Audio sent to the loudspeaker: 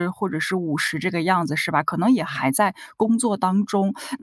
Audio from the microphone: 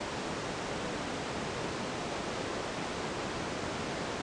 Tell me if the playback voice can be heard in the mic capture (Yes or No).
No